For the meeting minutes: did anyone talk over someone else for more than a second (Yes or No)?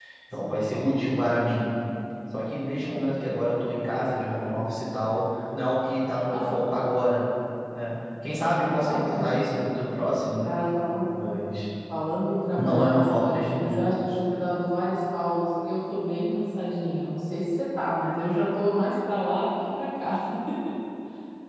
Yes